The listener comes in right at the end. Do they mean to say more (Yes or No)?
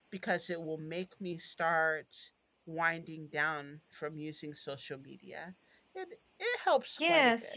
Yes